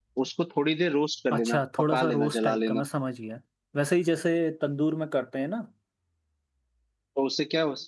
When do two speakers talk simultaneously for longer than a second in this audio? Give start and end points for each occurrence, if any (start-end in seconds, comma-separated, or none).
1.3-2.8